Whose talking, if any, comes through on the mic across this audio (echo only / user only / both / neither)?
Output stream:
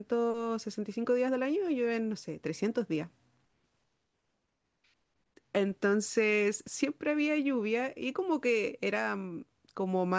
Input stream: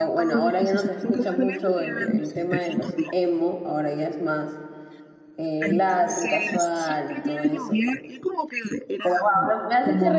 both